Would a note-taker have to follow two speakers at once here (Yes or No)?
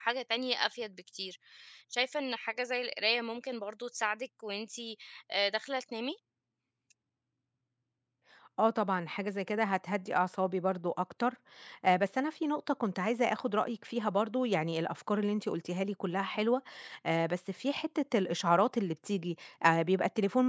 No